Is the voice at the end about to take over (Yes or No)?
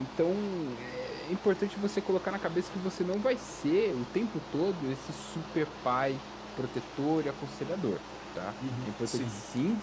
No